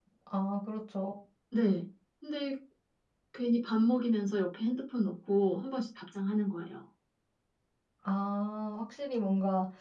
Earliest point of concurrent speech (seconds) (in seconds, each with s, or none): none